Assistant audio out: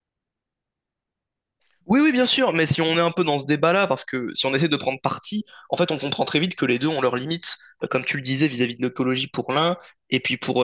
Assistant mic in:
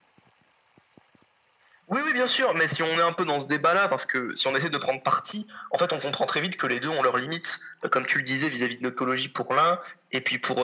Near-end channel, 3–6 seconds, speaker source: echo only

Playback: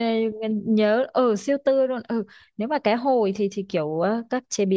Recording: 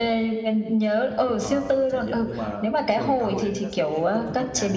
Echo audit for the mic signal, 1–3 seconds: both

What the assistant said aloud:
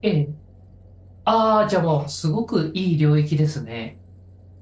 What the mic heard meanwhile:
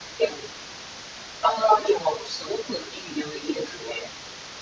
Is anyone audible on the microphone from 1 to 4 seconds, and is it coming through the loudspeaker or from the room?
echo only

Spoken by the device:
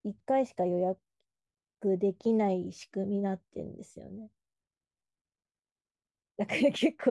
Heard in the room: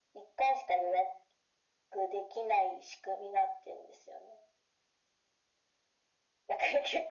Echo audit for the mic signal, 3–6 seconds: echo only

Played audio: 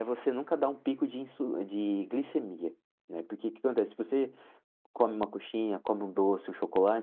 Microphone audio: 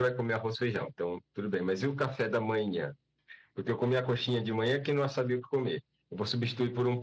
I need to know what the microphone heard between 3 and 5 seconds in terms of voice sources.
user only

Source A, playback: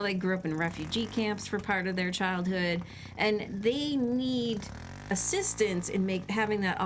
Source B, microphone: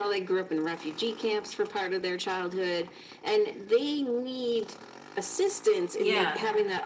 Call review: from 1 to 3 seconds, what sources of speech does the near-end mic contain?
echo only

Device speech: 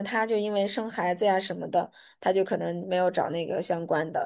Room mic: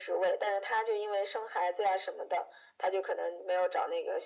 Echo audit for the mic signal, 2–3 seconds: echo only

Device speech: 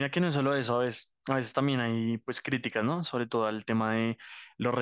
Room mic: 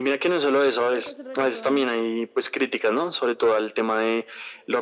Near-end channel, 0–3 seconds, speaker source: both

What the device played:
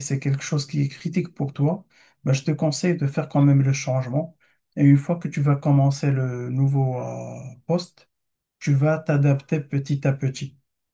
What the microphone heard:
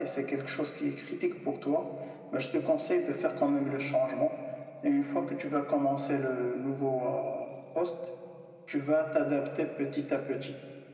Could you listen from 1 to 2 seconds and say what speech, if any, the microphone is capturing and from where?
echo only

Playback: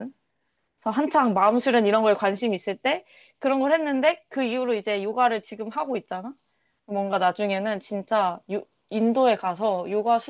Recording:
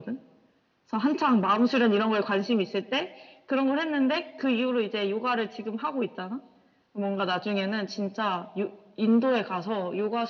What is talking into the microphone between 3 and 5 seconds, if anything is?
echo only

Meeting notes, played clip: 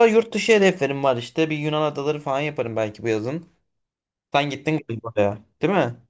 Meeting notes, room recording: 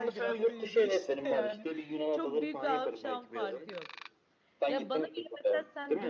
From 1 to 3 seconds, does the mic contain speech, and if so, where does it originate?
both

